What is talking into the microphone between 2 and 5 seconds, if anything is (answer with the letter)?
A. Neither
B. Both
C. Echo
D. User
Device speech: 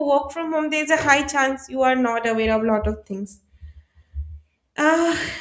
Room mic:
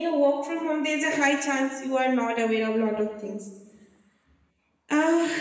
C